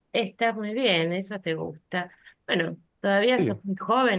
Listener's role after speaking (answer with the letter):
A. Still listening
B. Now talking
A